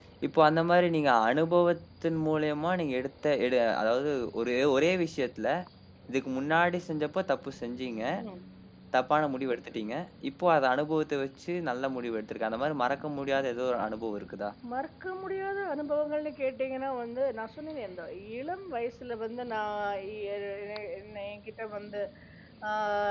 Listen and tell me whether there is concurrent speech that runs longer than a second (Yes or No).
No